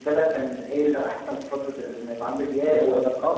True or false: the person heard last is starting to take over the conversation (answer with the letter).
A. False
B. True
B